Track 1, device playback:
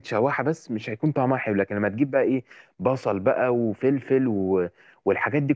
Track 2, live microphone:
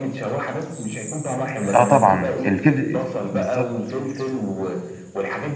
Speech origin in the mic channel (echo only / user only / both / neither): both